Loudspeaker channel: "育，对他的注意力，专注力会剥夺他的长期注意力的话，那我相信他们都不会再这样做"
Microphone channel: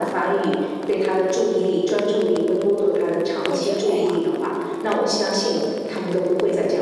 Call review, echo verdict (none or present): present